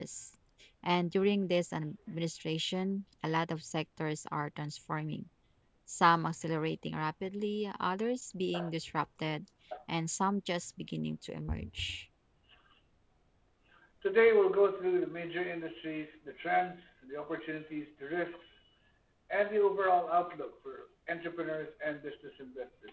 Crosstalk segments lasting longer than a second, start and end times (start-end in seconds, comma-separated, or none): none